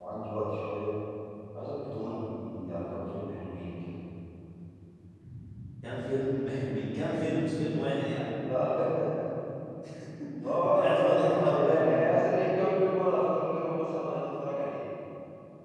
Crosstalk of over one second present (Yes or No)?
Yes